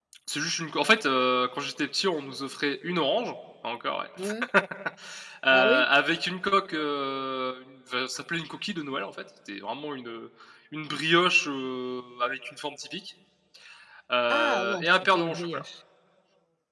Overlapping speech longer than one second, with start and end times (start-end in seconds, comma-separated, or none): 14.3-15.6